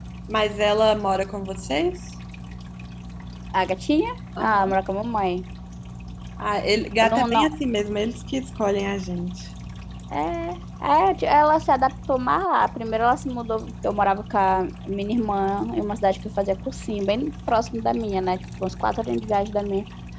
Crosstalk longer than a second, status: none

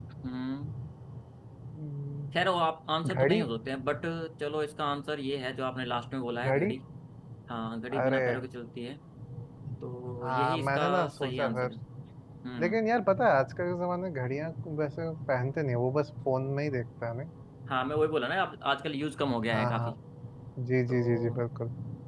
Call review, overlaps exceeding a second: present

